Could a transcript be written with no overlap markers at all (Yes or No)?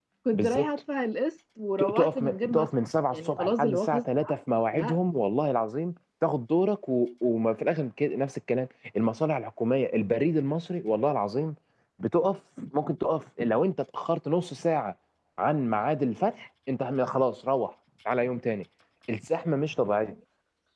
No